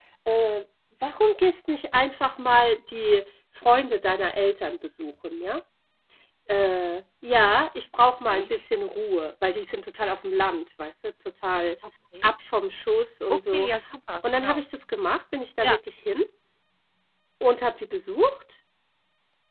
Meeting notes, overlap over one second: none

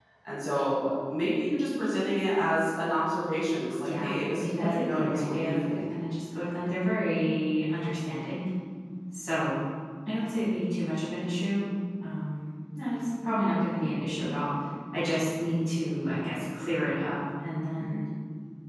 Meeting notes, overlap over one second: present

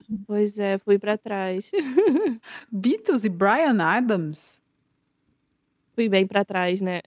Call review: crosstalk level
none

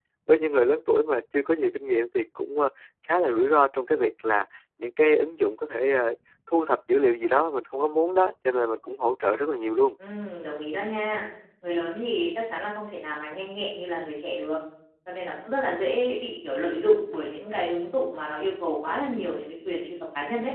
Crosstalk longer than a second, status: none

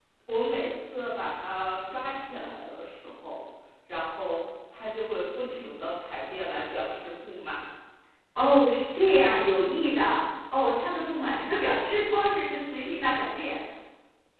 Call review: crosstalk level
none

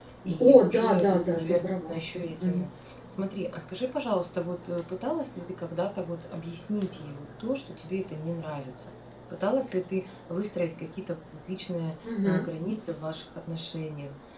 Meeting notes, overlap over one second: present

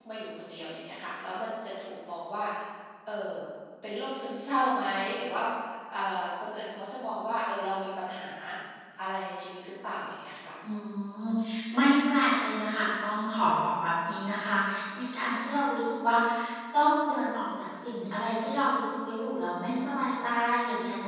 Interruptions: none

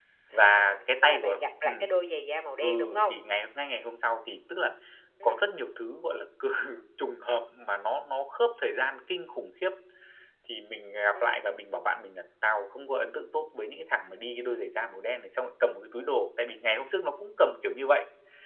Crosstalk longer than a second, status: present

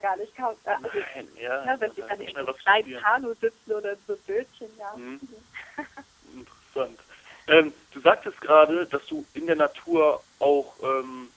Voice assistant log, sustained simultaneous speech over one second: present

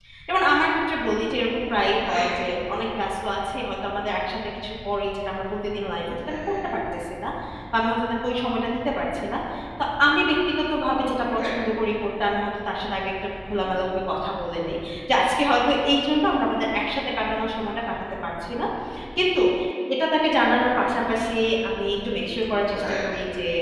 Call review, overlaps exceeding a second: none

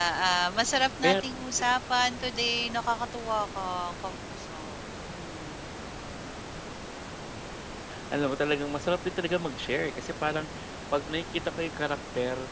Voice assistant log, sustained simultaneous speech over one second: none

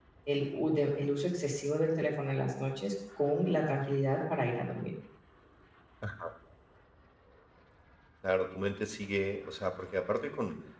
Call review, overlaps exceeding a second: none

